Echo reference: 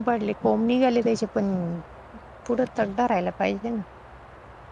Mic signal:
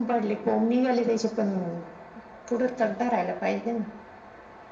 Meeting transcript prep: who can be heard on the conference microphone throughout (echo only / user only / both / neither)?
echo only